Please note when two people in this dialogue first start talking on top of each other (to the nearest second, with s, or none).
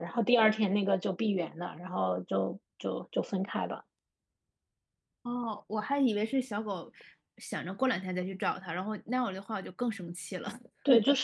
none